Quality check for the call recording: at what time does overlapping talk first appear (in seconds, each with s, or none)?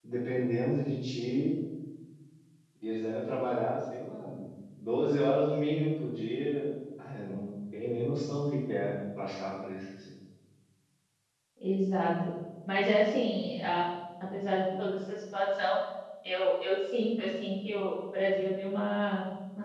none